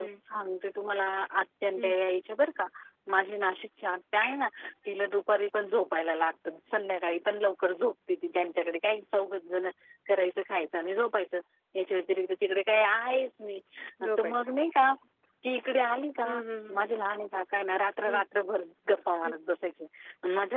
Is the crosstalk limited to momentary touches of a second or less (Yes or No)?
Yes